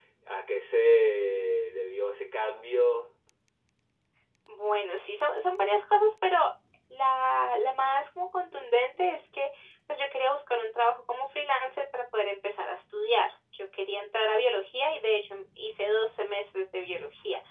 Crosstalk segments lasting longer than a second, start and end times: none

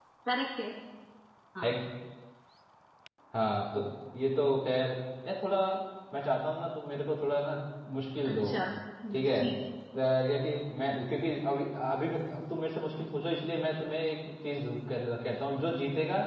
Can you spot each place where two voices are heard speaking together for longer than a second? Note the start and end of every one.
none

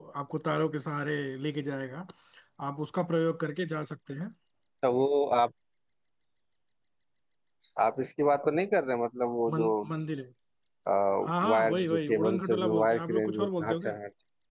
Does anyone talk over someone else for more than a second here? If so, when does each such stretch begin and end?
11.5-13.9

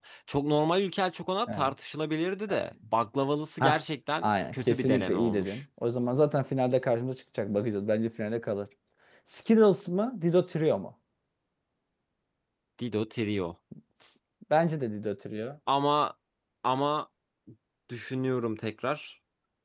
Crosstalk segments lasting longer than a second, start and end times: 4.2-5.6

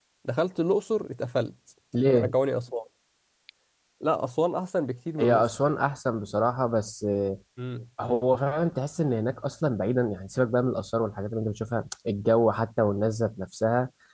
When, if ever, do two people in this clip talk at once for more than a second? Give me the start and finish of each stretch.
none

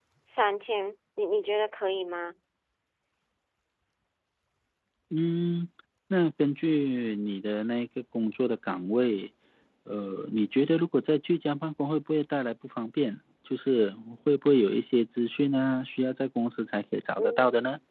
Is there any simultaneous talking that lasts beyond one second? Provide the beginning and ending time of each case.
none

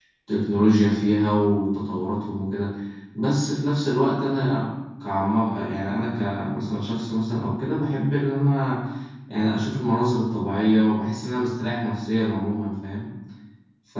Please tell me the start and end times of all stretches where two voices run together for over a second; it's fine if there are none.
none

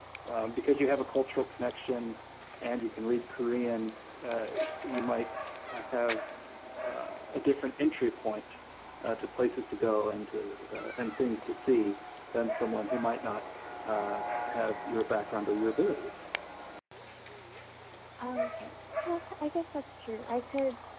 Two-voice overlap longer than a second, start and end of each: none

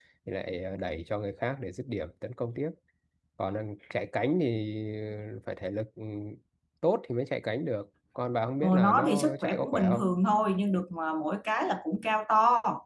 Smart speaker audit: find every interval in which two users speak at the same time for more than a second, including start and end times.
8.6-10.0

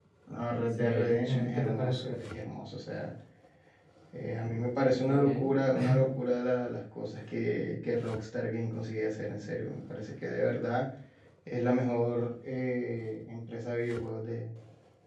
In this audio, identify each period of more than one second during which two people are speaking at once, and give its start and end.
0.7-2.2

